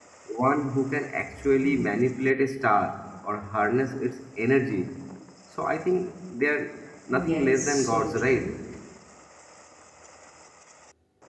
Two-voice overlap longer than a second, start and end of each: 7.1-8.5

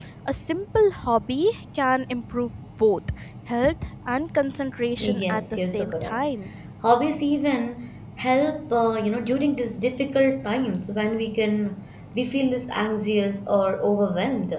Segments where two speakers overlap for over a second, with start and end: 5.0-6.3

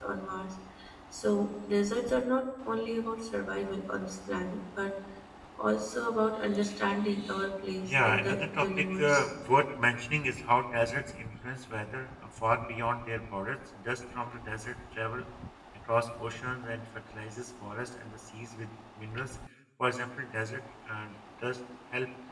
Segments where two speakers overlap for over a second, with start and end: 7.8-9.3

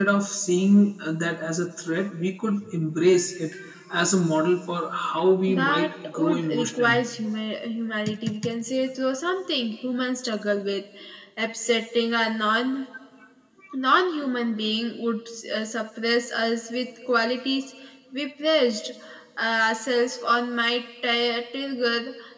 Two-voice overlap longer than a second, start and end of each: 5.5-7.0

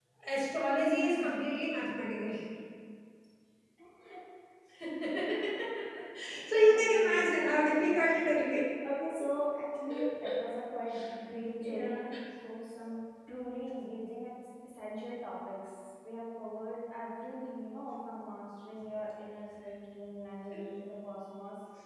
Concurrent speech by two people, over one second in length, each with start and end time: 6.6-8.2

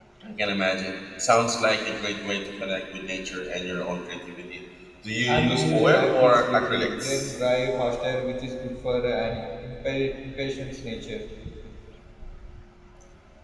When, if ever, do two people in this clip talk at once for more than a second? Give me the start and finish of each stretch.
5.3-7.3

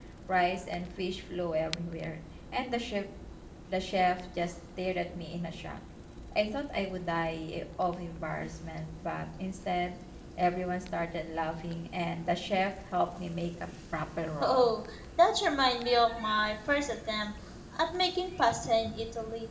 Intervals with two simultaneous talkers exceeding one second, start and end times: none

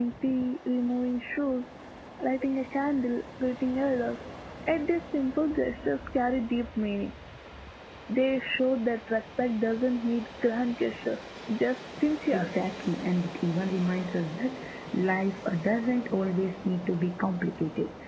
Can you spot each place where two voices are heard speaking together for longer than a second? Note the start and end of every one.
none

